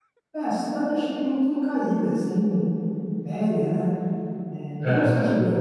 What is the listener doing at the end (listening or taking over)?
listening